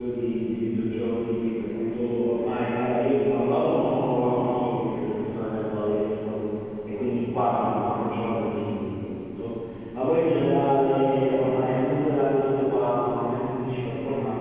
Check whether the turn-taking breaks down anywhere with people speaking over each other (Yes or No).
No